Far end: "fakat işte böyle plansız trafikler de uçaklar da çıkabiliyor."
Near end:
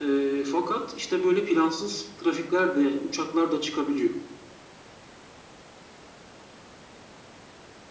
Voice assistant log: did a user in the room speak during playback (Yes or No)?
No